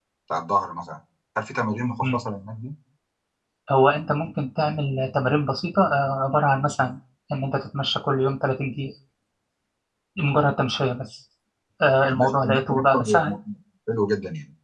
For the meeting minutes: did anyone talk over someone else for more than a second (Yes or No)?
Yes